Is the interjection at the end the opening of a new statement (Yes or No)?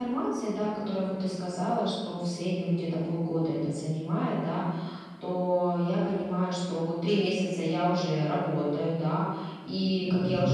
No